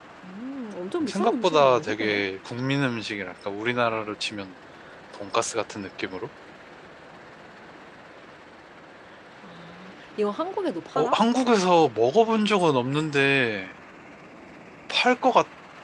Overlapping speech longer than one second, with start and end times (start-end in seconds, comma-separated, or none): 1.0-2.2